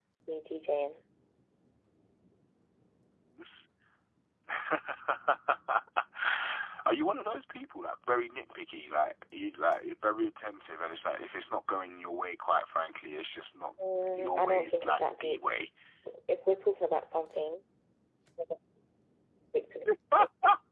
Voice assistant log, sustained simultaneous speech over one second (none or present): present